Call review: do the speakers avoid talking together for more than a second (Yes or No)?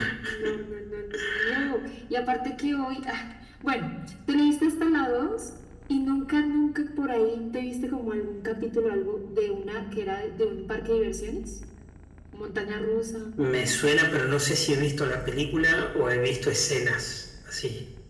Yes